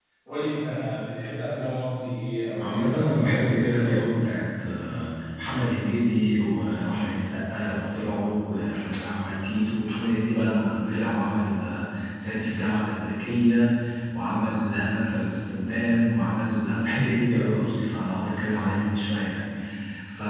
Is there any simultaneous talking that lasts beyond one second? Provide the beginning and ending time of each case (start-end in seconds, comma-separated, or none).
2.6-4.1